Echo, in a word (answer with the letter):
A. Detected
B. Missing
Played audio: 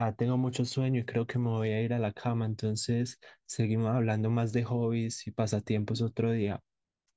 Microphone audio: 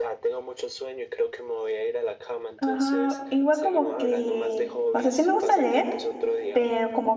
A